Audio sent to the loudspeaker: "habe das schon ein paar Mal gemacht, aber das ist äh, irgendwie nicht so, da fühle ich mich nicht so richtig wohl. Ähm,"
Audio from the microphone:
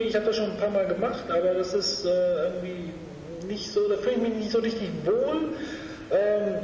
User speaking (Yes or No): No